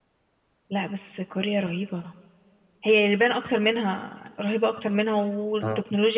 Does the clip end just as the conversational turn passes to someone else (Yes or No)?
No